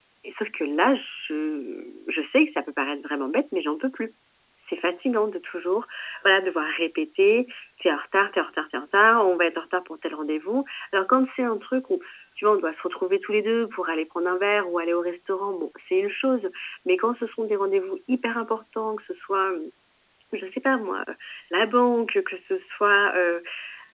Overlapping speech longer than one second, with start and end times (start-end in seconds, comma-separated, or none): none